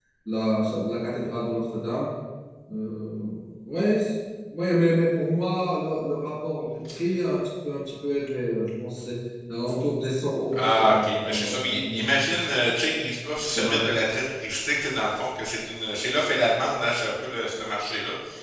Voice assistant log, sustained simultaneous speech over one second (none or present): present